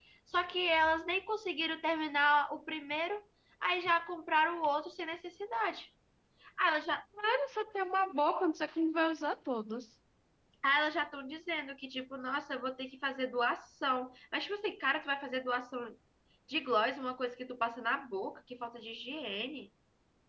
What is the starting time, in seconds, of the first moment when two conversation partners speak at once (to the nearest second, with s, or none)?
none